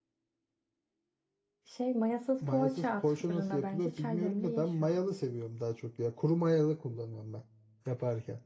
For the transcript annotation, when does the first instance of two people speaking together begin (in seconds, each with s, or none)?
2.4 s